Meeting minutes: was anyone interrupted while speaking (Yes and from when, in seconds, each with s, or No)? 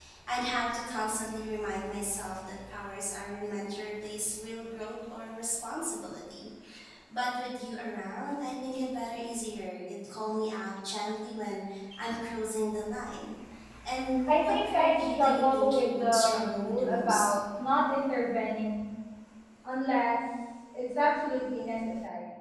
Yes, from 14.4 s